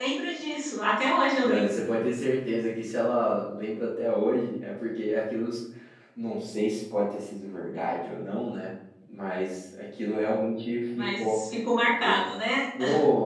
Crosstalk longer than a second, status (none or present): none